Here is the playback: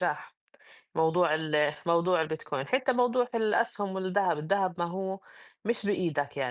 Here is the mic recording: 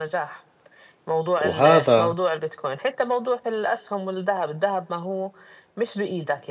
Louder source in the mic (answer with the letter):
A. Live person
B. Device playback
A